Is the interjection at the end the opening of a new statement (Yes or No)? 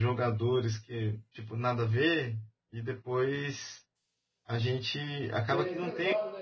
Yes